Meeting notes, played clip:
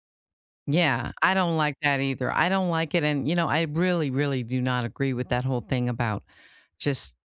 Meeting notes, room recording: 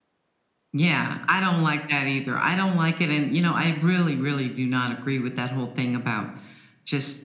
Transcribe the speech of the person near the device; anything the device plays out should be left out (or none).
none